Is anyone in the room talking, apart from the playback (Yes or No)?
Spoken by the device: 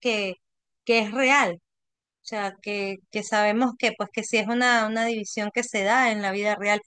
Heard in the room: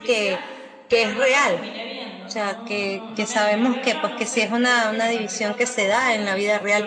Yes